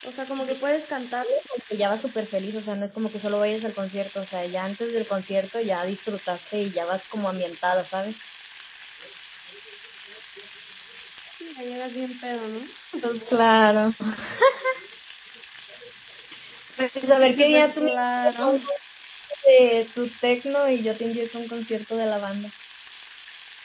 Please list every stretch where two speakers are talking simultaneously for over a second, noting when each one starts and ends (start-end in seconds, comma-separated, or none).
17.2-18.6